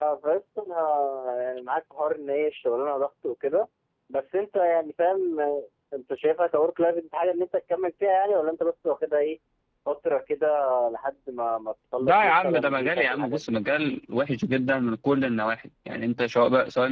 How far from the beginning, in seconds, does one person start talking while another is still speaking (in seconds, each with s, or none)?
12.0 s